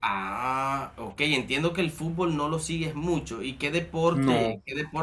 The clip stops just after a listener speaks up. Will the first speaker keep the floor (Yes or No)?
Yes